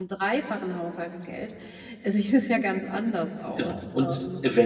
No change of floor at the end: No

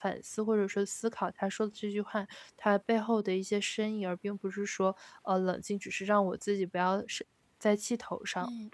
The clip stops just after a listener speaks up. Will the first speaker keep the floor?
No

